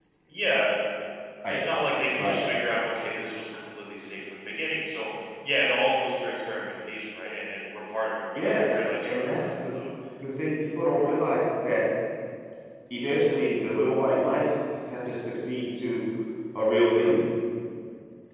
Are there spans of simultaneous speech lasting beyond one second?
Yes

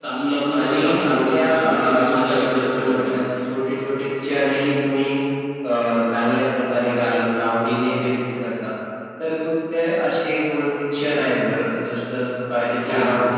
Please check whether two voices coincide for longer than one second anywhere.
Yes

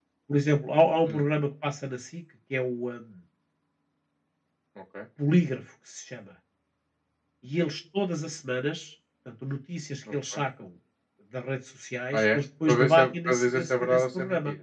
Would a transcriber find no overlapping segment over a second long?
No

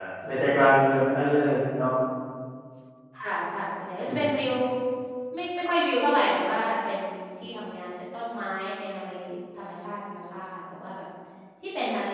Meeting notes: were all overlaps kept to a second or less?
Yes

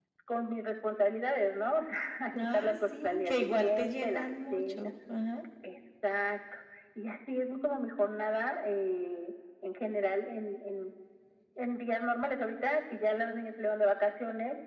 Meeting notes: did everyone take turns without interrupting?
No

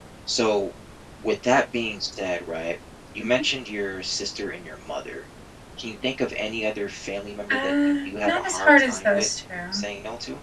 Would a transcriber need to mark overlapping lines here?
Yes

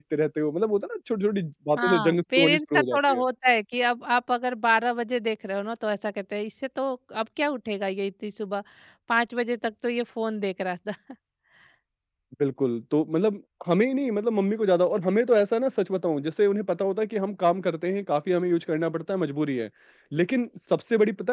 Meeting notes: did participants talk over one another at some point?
Yes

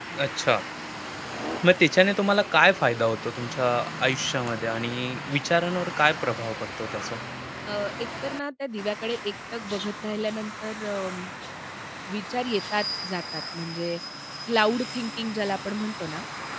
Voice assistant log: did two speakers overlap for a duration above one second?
No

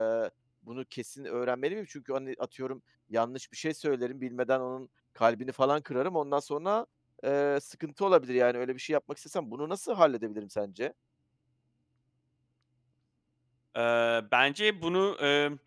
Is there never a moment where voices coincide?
Yes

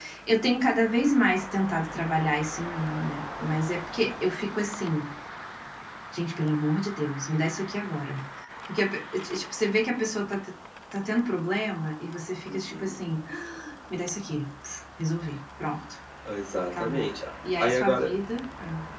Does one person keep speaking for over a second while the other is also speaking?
No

